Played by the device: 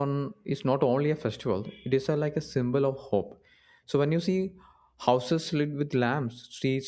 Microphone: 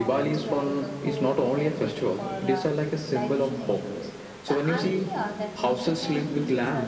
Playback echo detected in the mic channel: Yes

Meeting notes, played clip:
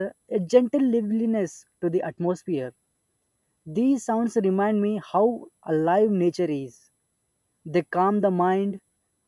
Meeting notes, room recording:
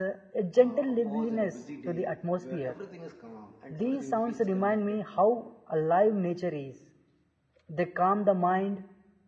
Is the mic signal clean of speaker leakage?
No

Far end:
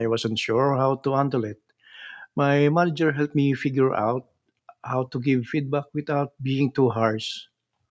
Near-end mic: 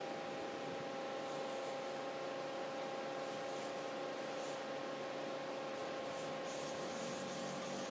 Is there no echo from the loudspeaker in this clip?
Yes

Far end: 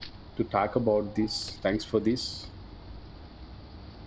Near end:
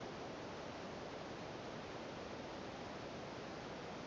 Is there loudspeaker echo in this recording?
No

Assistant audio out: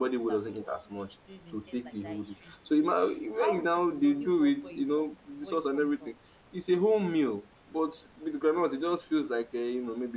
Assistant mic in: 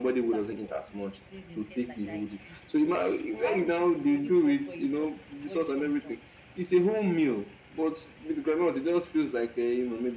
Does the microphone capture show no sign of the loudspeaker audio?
No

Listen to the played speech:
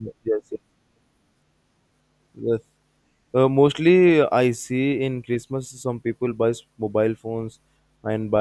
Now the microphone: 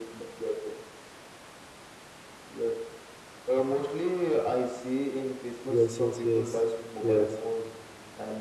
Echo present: Yes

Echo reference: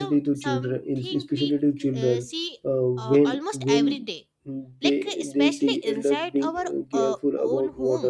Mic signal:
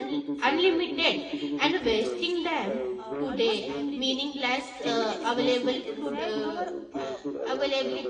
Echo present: Yes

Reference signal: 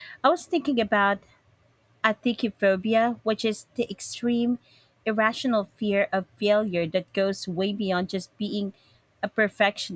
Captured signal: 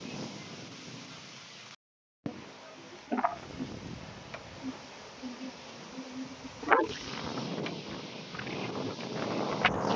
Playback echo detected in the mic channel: No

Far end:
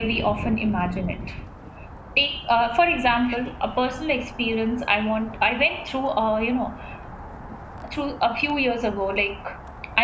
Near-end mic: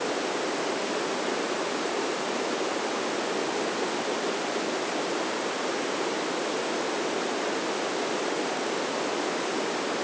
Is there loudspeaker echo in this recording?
No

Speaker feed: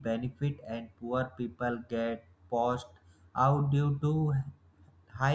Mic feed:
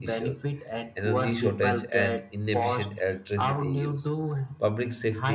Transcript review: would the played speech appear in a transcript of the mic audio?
Yes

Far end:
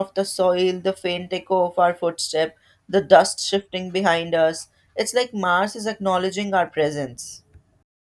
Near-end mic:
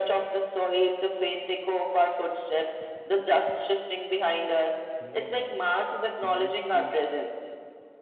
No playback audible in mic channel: No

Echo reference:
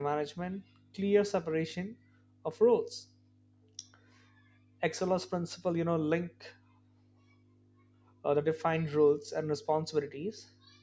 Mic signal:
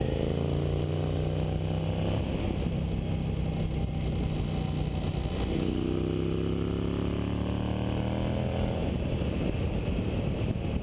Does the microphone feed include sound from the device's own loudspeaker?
No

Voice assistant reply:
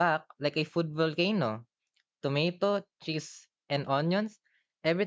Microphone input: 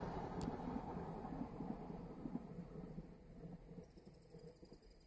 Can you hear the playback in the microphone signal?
No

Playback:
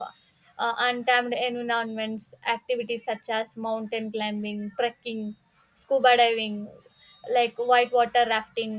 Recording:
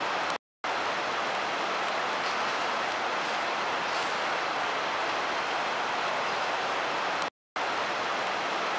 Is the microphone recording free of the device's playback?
Yes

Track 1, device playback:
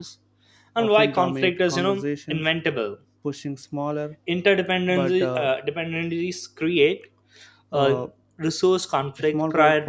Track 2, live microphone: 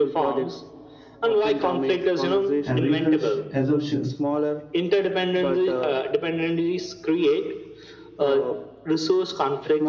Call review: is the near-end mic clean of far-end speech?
No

